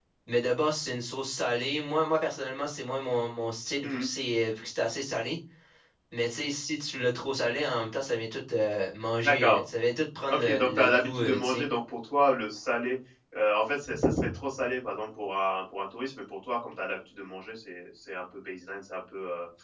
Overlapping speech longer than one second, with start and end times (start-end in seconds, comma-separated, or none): 10.3-11.7